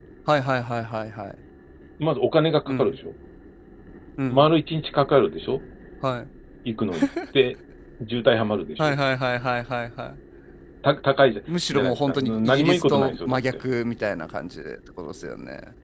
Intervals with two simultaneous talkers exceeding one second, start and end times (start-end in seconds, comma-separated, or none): 11.7-13.4